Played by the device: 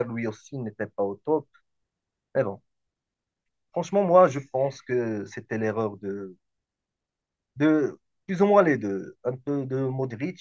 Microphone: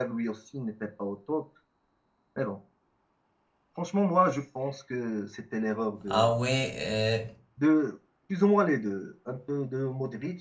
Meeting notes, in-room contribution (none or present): present